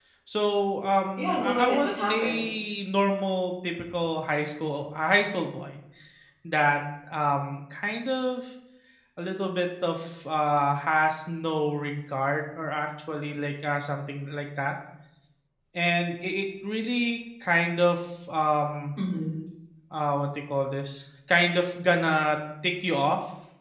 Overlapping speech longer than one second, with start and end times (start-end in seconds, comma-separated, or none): 1.2-2.4